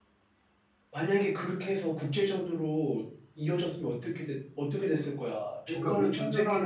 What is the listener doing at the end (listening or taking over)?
taking over